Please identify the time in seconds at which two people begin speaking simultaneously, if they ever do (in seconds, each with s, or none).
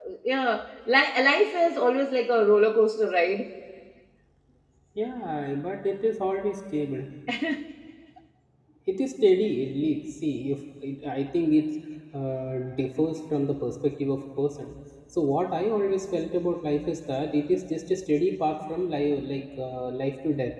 none